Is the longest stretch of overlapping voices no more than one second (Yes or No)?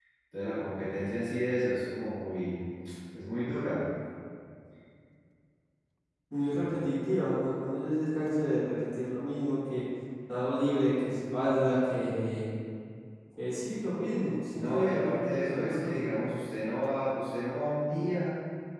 No